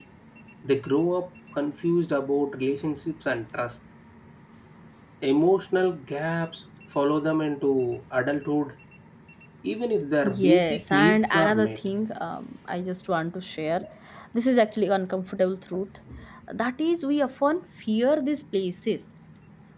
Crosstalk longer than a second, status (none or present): present